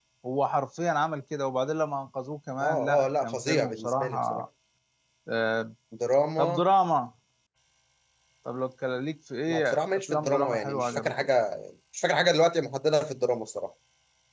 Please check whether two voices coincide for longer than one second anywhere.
Yes, from 2.6 s

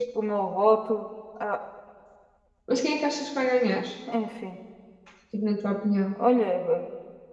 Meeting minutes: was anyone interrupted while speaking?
No

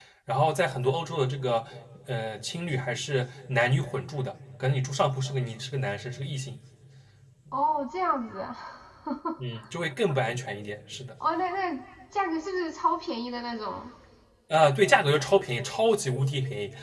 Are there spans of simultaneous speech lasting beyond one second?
No

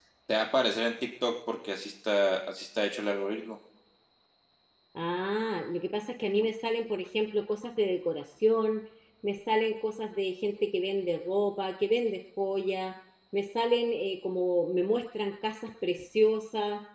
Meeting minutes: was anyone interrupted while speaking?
No

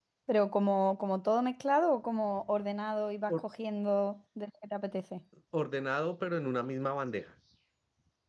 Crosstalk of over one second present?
No

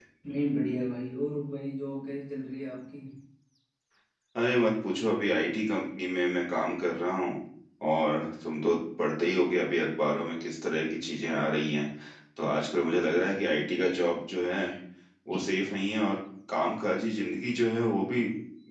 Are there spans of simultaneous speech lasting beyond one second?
No

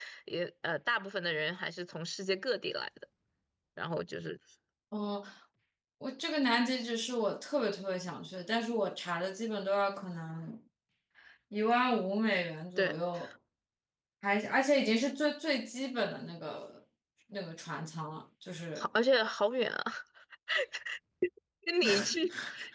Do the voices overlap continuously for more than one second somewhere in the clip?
No

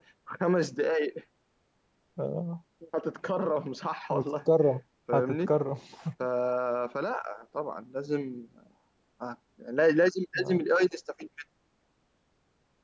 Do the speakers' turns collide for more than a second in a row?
No

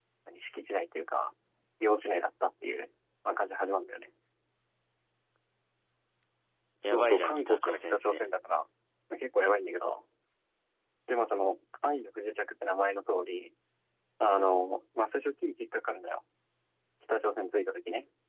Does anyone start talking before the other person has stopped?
Yes, from 6.8 s

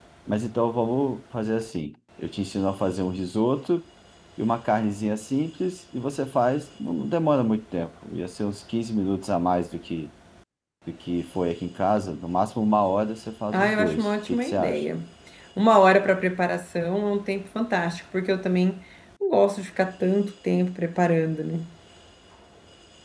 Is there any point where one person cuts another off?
Yes, from 13.5 s

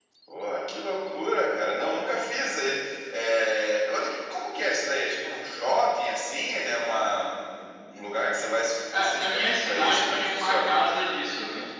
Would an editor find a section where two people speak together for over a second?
Yes, from 8.9 s

